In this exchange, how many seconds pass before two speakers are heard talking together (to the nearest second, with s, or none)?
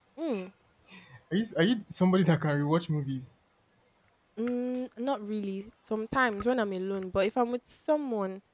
none